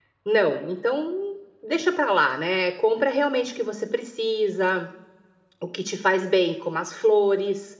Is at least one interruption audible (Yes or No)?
No